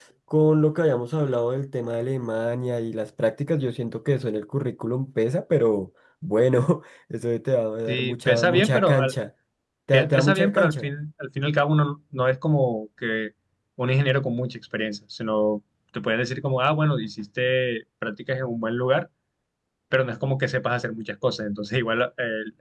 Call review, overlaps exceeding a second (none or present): present